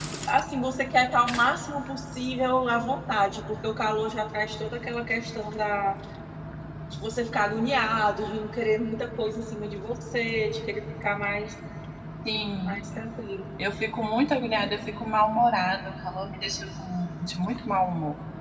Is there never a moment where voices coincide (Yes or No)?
Yes